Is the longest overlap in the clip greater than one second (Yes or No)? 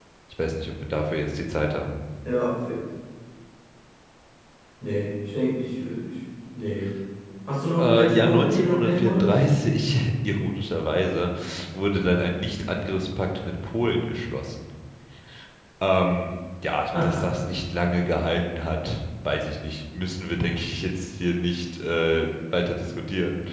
Yes